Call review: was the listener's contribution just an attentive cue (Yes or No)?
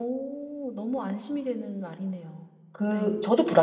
No